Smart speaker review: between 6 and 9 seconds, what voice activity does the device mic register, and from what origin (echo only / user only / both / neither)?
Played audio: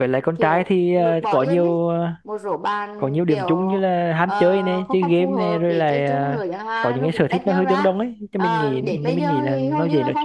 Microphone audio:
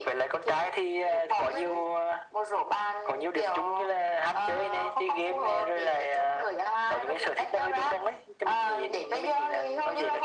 echo only